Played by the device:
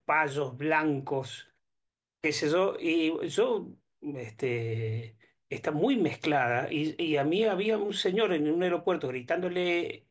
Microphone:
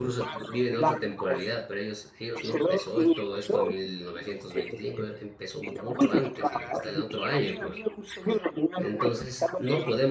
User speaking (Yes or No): Yes